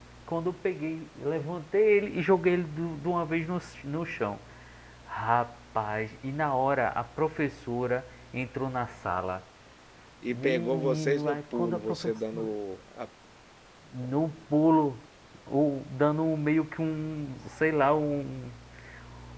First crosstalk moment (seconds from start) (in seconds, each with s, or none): 10.3 s